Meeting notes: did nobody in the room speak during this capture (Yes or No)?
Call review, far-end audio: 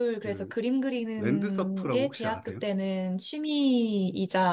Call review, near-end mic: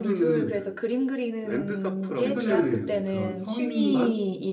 No